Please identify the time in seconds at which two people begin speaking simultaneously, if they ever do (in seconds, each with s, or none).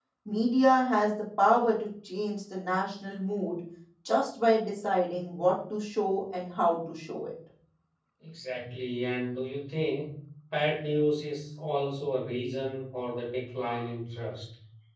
none